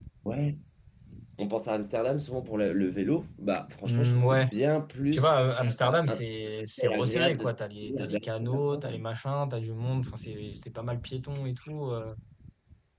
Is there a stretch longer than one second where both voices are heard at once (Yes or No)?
Yes